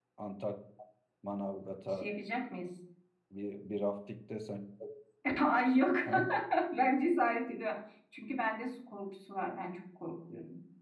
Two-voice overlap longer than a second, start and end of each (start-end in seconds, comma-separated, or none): none